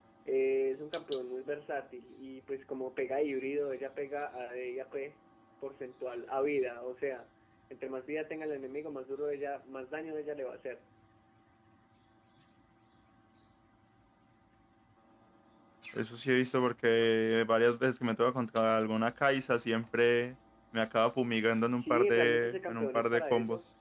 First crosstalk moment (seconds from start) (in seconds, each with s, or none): 21.8 s